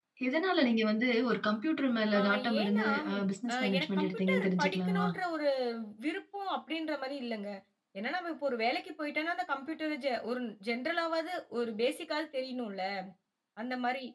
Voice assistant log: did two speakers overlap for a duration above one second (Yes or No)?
Yes